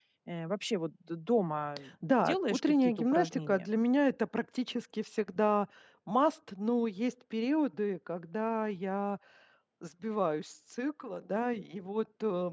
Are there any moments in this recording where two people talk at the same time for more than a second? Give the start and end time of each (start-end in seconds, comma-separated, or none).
2.0-3.7